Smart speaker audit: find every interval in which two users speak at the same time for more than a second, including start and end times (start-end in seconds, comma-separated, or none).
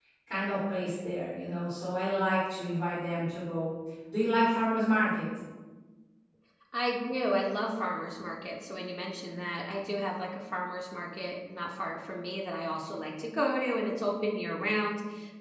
none